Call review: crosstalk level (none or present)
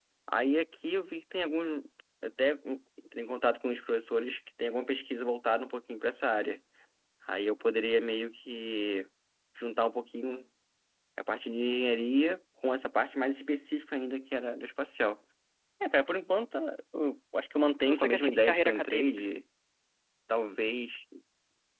present